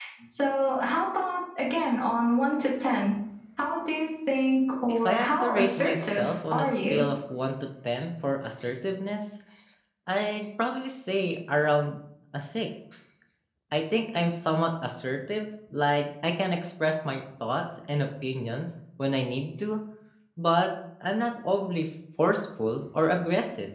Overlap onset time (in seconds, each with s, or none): 4.9 s